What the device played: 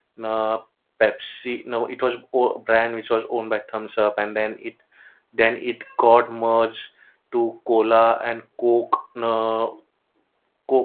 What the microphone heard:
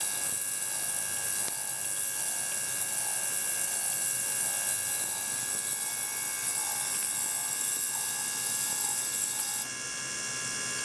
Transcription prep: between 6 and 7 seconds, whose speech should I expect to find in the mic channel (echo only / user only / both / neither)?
neither